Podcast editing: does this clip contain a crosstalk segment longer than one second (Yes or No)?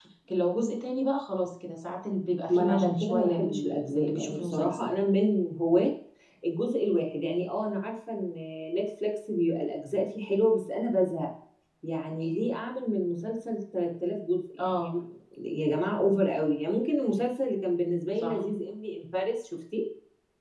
Yes